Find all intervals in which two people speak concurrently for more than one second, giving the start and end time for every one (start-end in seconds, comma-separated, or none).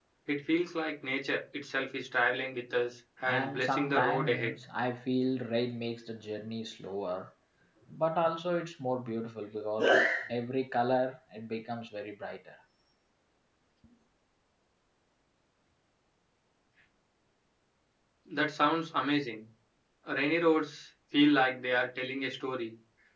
3.2-4.5